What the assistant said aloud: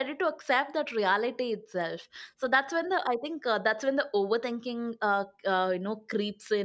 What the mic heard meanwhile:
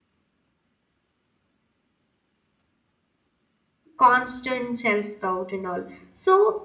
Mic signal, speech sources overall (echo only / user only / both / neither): user only